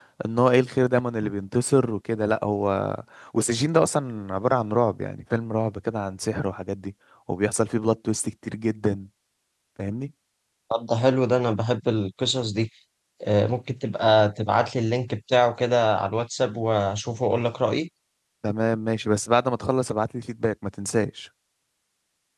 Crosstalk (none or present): none